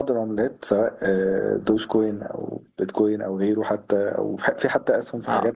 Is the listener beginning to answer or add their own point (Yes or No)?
Yes